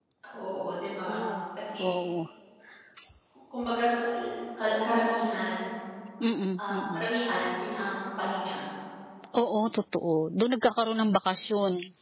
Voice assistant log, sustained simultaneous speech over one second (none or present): none